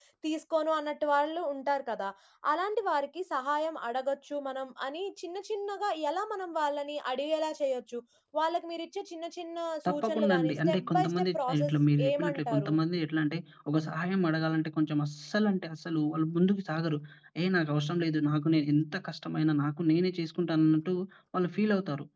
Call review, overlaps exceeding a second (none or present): present